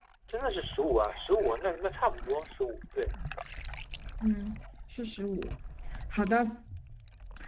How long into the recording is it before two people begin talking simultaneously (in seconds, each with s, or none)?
none